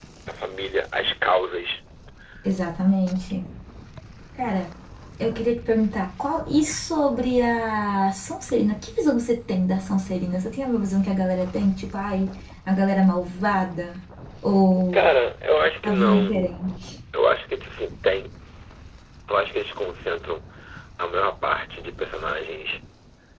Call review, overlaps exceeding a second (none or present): none